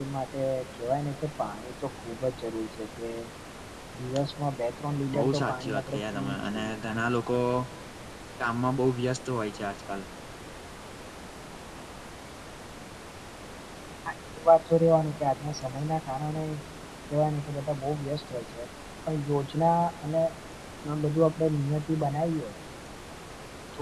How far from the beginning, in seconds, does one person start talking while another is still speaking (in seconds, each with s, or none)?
5.1 s